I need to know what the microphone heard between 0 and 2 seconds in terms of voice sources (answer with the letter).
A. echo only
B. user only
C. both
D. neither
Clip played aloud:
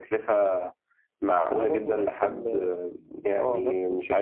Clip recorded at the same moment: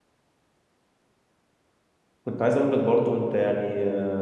D